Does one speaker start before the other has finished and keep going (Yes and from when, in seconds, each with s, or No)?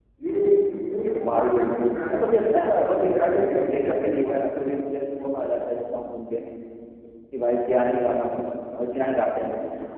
Yes, from 1.2 s